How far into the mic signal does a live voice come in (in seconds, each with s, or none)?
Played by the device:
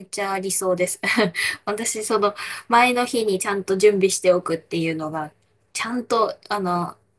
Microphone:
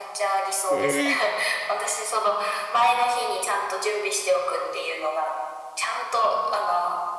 0.7 s